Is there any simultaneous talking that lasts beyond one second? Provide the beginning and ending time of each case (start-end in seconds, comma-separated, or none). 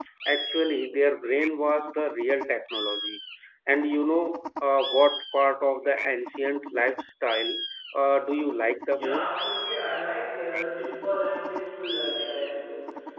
none